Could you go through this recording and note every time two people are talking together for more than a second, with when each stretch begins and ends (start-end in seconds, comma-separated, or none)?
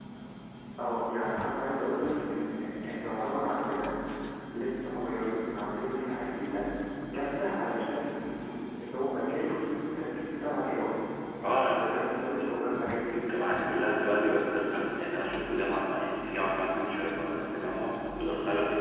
none